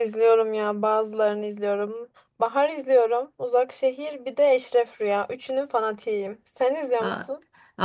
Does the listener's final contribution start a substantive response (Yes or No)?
Yes